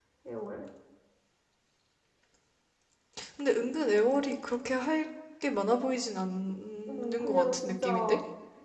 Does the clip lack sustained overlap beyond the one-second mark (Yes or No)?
No